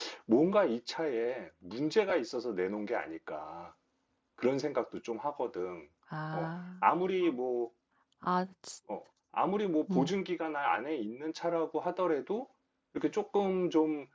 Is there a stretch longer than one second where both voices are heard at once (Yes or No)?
No